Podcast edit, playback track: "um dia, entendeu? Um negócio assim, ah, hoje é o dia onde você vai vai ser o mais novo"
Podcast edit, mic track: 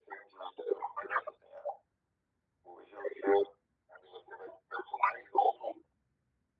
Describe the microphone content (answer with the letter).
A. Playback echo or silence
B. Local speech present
A